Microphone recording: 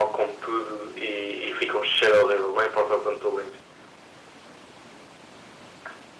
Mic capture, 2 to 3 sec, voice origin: echo only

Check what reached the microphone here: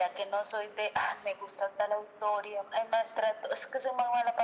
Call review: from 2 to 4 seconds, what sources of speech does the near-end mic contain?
echo only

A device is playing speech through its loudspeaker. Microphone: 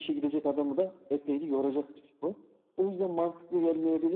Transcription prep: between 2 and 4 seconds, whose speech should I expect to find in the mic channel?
echo only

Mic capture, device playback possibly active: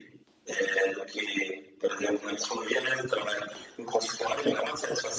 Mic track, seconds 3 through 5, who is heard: echo only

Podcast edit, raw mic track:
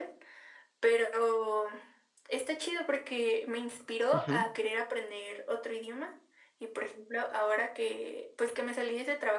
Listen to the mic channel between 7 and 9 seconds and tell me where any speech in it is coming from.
echo only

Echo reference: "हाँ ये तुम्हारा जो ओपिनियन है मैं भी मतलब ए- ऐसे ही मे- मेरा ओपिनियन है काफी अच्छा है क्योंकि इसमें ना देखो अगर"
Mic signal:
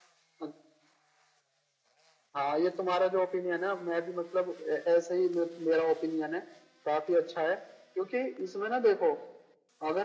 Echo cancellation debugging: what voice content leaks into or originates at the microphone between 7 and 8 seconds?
echo only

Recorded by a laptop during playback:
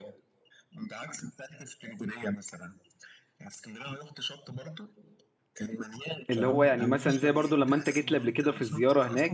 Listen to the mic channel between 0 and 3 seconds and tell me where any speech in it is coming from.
echo only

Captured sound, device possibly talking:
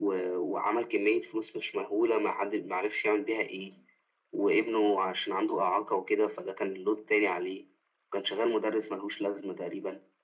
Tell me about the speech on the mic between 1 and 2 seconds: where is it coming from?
echo only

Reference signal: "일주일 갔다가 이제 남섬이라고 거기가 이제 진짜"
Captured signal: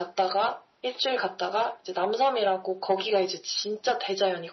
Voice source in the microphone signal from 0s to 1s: echo only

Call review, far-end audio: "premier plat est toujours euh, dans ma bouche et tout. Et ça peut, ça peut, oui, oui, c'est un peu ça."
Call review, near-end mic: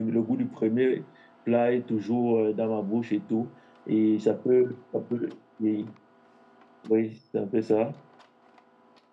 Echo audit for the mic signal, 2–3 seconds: echo only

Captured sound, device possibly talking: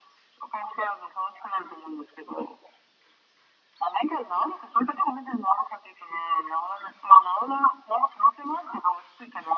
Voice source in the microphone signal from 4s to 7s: echo only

